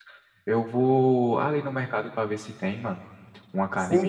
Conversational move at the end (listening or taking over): taking over